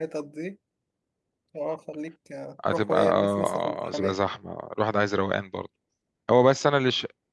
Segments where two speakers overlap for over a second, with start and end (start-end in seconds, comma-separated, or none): 2.7-4.2